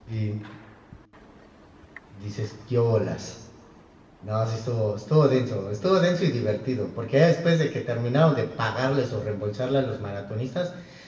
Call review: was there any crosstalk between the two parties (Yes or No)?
No